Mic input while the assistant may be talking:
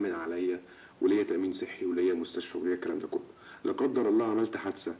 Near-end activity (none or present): none